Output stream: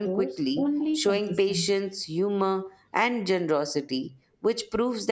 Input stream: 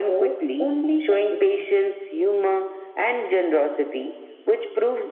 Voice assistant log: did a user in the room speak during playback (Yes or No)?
No